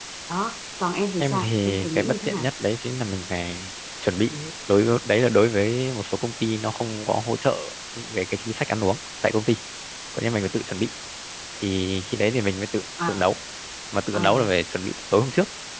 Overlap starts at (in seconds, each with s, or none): 1.2 s